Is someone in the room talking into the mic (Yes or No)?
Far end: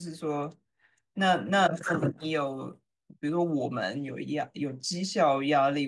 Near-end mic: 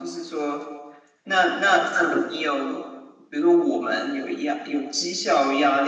No